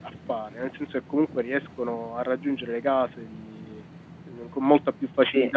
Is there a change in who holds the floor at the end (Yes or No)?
No